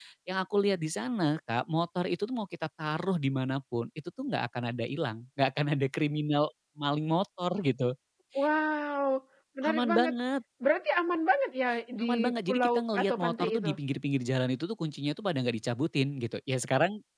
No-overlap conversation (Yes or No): No